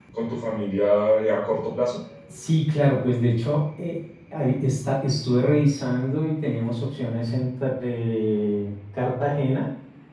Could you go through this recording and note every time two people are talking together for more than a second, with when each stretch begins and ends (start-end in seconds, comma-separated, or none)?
none